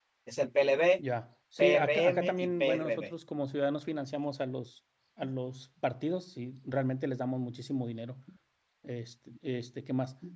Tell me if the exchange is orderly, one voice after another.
No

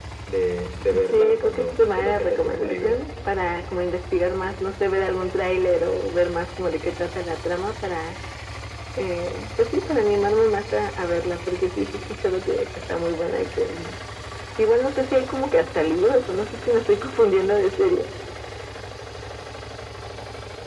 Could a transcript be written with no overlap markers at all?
No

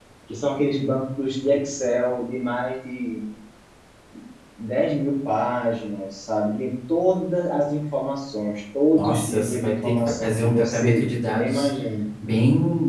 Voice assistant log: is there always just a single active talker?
No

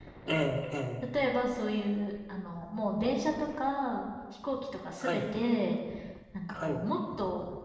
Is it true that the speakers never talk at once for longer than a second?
Yes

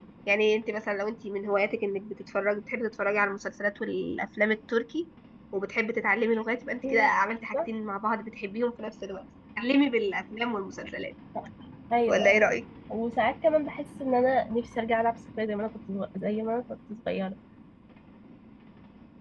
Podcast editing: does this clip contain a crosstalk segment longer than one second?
No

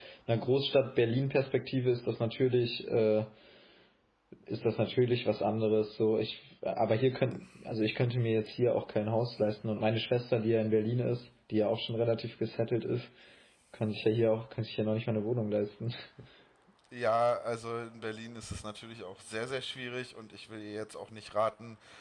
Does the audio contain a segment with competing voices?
No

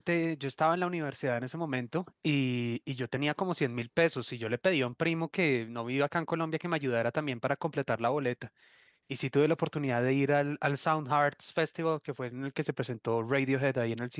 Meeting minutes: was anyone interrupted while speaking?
No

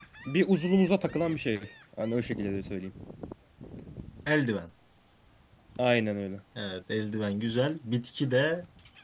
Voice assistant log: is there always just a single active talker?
Yes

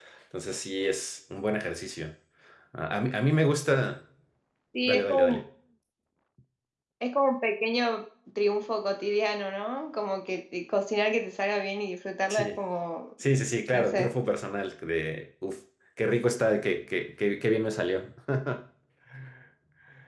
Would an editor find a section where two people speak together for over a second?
No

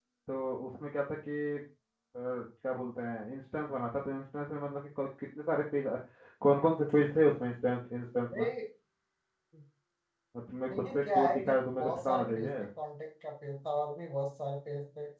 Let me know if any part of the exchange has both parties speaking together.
Yes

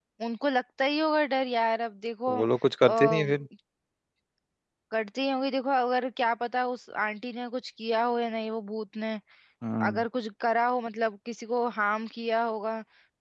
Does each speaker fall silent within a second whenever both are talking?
Yes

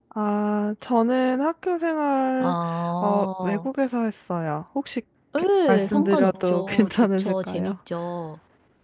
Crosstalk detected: Yes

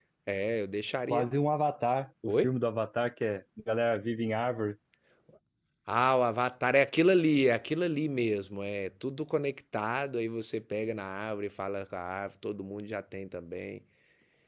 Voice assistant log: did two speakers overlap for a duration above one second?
No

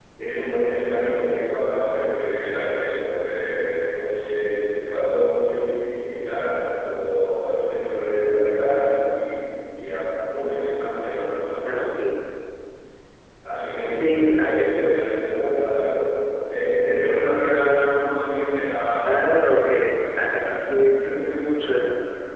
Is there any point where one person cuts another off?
Yes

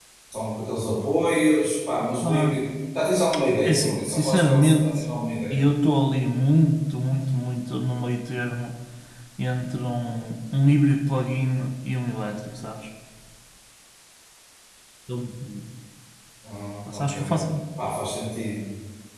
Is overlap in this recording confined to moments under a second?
No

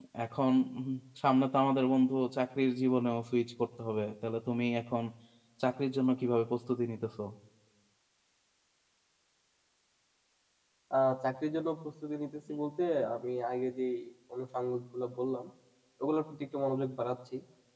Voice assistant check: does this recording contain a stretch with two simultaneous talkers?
No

